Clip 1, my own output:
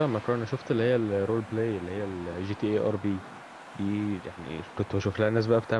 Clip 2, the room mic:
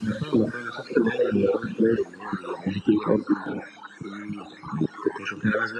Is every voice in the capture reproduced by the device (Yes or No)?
Yes